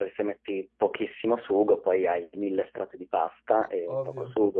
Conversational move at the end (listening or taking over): taking over